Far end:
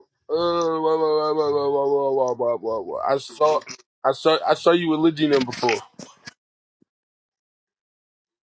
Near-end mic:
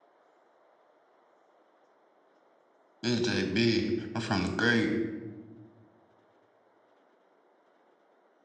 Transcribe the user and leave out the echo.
It's JB. I'm from the great.

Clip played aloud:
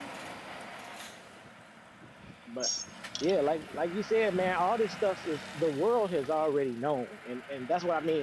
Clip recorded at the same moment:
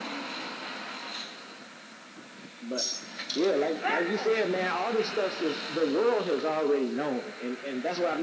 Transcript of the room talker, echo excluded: Listen,

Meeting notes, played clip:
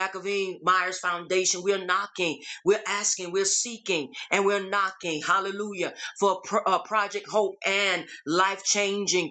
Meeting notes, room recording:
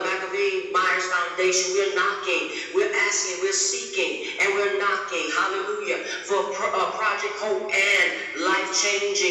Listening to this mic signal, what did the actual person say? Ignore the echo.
none

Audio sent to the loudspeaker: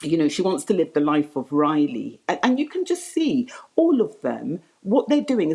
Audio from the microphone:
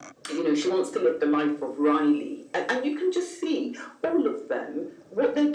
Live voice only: none

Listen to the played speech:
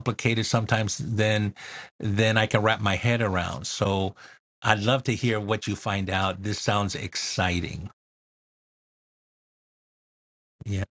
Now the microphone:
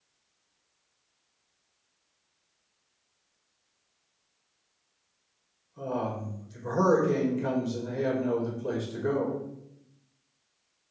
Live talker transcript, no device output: um, if a hurricane comes and they have no other place to go.

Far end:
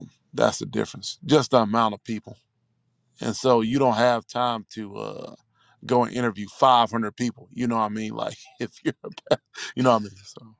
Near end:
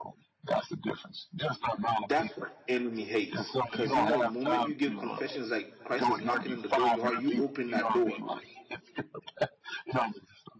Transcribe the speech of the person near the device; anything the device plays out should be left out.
that's what the enemy hates because you know moment you give confessions like christ is knocking on the door of your heart you open that door

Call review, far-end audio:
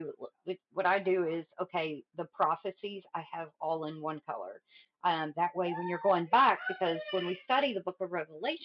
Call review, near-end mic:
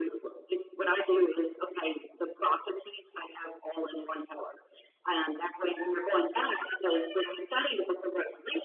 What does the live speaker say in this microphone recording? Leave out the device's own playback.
none

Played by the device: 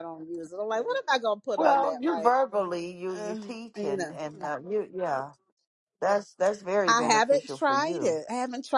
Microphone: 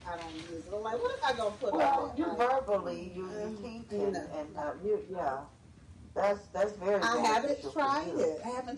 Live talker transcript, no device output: none

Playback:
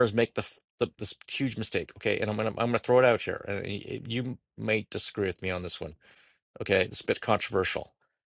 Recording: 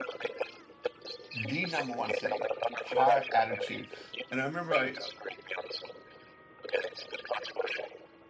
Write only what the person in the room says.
the number one thing hire attitude and i remember i

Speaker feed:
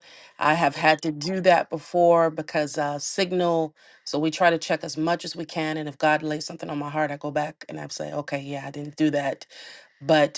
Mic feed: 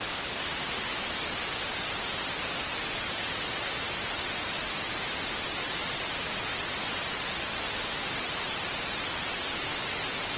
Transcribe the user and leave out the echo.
none

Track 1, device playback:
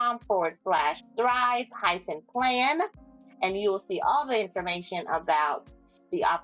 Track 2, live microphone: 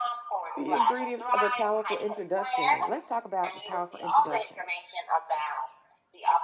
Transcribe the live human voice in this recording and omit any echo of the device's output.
the ingredients of a powerful introduction. Let's talk about the powerful introduction.

